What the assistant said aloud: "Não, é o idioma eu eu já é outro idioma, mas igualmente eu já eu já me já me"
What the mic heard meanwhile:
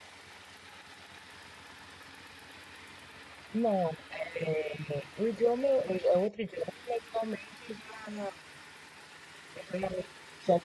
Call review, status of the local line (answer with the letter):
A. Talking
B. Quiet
B